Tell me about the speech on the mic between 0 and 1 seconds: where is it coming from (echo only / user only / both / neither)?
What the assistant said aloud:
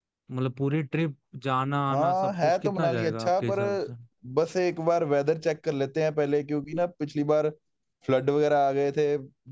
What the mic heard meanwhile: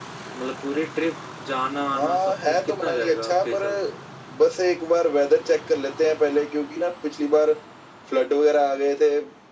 echo only